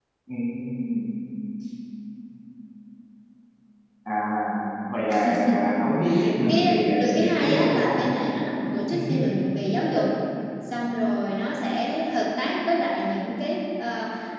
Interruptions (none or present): present